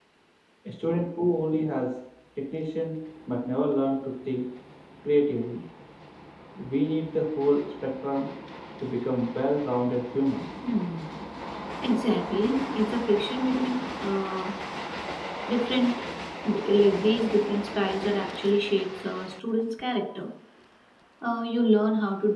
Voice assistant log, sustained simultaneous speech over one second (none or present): none